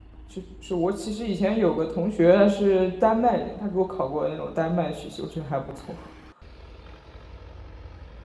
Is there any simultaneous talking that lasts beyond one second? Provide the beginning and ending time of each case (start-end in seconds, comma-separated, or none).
none